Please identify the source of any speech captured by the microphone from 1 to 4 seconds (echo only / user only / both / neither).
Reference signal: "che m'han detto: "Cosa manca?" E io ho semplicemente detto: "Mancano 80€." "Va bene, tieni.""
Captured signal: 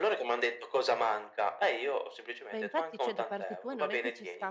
both